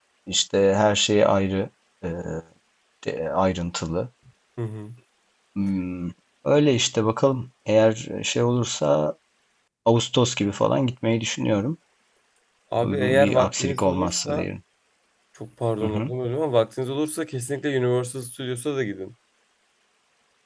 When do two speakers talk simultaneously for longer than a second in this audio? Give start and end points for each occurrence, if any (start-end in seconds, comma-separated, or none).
12.8-14.5